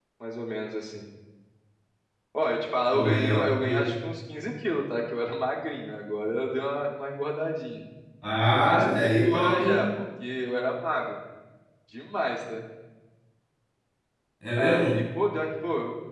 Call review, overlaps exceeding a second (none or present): present